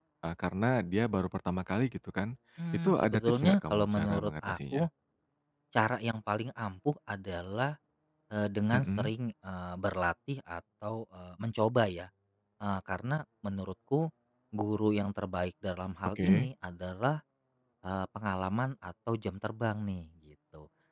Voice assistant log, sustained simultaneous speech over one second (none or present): present